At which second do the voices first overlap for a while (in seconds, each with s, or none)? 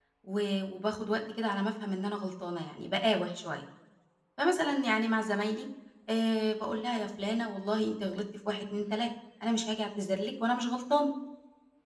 none